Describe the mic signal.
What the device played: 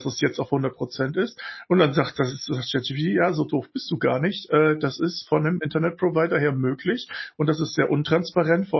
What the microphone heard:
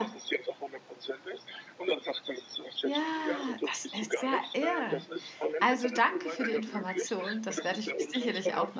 both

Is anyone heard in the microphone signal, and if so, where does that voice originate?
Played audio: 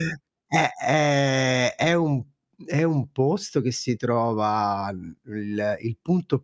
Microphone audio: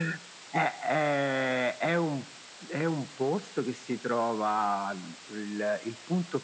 echo only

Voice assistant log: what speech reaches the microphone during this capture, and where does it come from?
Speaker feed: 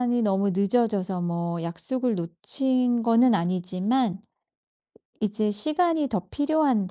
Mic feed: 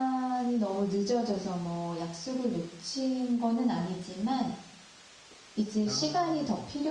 both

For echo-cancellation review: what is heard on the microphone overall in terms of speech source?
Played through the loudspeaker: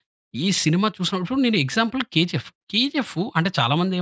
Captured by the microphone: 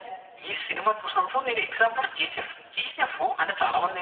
echo only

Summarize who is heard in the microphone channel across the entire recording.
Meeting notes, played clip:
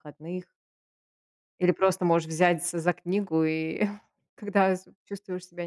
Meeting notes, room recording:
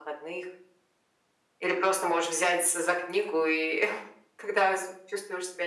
echo only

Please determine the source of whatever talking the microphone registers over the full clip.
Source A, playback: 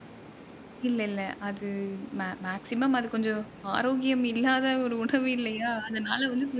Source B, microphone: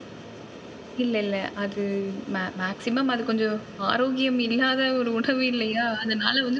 echo only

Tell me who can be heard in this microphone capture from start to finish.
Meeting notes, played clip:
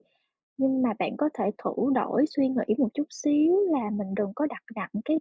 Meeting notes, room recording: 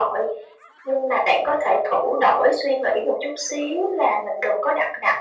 echo only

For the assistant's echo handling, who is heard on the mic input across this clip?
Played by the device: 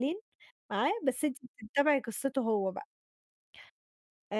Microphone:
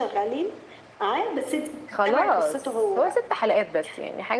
both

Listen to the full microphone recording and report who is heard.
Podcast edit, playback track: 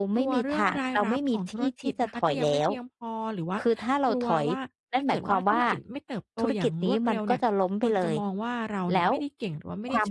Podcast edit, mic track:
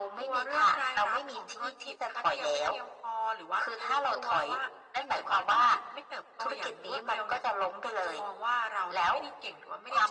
echo only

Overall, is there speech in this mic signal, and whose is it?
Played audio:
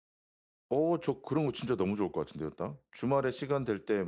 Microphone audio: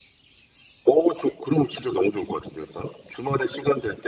echo only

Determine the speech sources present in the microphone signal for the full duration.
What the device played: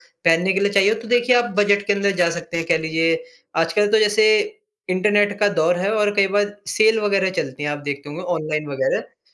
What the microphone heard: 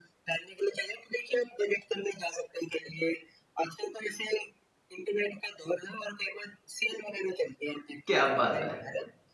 both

